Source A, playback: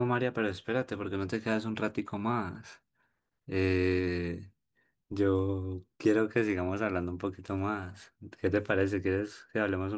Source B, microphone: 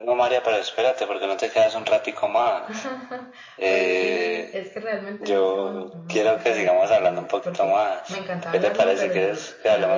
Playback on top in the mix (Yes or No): Yes